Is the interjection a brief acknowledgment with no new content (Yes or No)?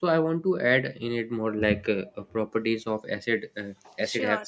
Yes